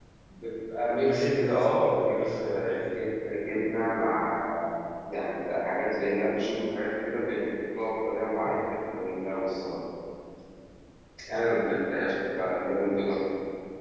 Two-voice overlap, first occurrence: 1.0 s

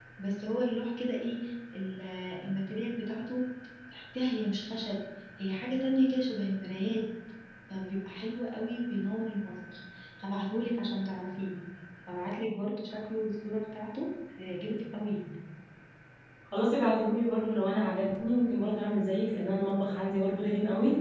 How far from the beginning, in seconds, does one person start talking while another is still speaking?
none

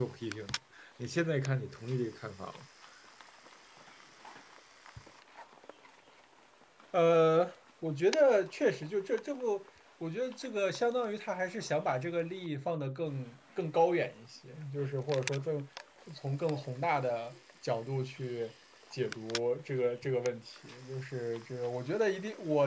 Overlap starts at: none

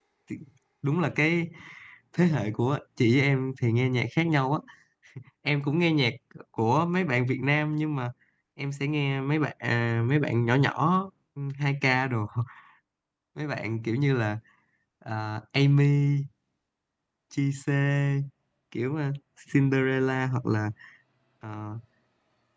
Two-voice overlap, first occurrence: none

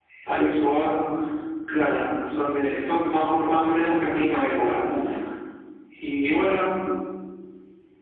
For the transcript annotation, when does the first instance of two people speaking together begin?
3.4 s

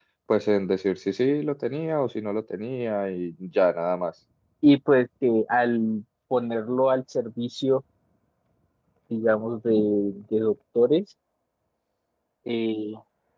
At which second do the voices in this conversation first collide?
none

